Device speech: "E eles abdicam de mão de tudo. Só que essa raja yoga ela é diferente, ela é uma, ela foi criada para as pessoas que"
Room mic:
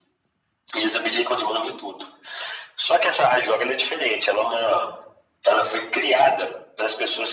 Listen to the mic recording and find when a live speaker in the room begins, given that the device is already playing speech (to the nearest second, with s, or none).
none